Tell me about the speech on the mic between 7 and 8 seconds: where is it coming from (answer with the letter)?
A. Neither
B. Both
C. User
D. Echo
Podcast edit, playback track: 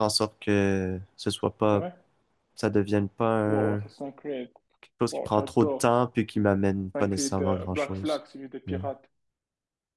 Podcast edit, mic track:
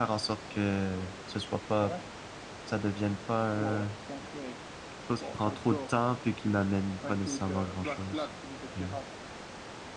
D